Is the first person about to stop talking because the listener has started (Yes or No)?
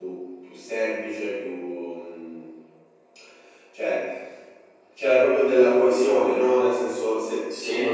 No